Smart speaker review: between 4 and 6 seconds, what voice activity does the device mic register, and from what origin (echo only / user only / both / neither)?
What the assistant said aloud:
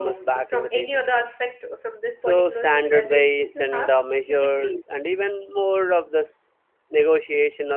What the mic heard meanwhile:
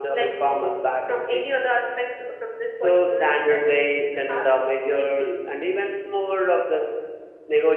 echo only